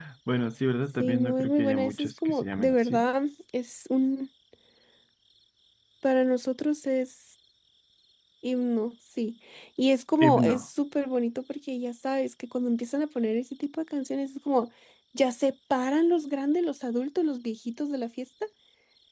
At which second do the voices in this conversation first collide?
1 s

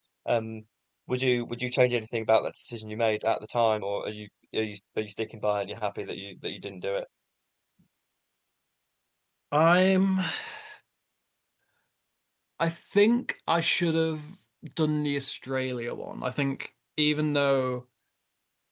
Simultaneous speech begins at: none

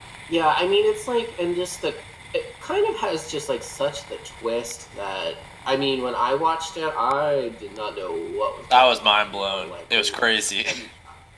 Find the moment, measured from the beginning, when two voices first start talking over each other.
9 s

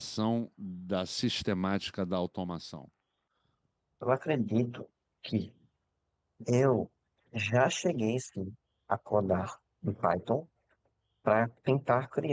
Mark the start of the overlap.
none

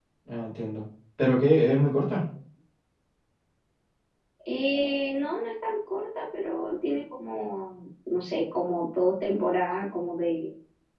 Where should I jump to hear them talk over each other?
none

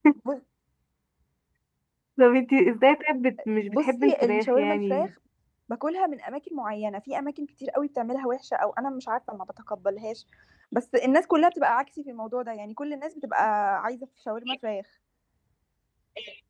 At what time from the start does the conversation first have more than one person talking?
4 s

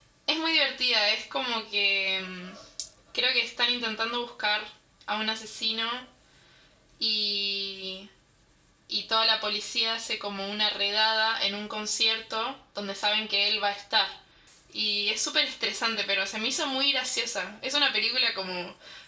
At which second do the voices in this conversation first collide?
none

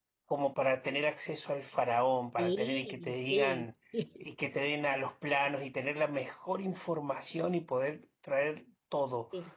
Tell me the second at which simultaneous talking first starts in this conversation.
2 s

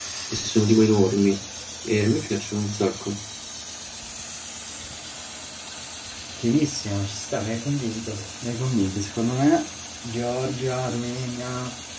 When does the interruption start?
none

